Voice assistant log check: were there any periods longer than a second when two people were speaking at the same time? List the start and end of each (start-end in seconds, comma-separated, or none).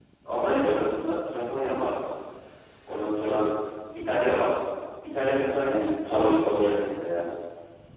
5.6-6.9